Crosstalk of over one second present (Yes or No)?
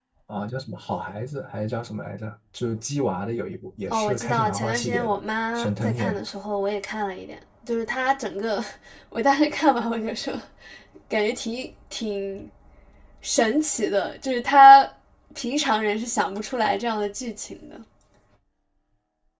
Yes